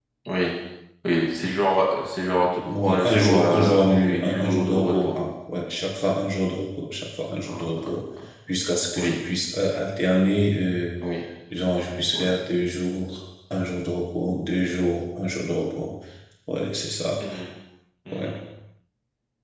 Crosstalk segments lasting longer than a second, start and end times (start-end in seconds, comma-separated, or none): 2.8-5.2